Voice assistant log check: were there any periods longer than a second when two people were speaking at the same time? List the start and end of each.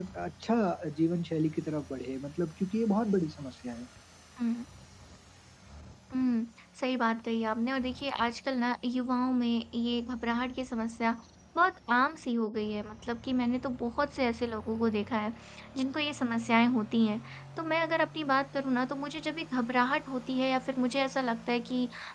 none

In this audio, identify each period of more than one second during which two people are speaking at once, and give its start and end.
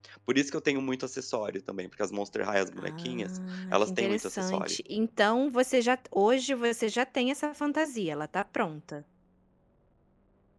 2.8-4.8

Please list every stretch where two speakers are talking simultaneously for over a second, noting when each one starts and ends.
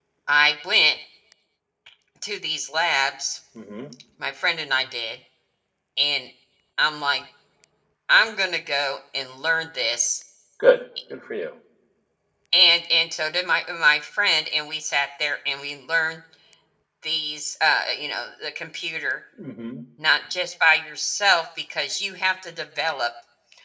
none

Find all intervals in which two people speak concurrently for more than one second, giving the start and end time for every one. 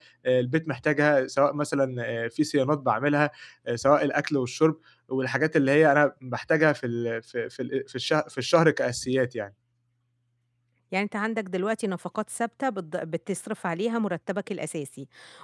none

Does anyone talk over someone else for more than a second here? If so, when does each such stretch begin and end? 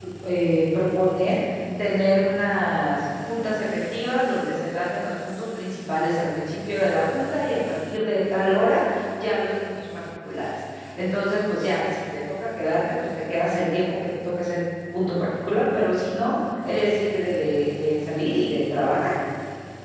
none

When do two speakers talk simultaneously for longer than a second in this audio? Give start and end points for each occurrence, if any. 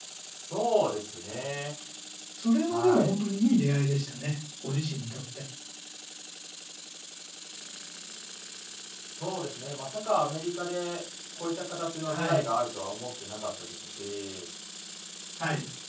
none

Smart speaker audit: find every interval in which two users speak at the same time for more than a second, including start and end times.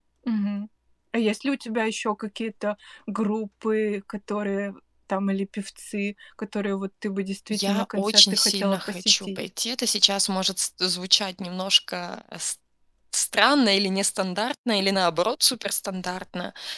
7.5-9.4

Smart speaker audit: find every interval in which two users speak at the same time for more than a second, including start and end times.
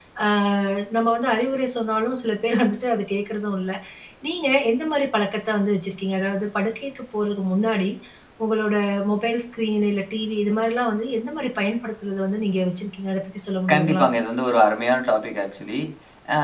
none

